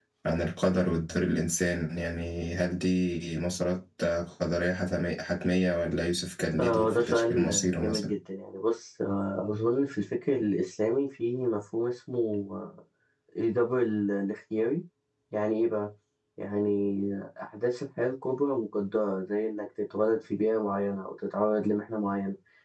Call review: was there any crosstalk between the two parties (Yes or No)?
Yes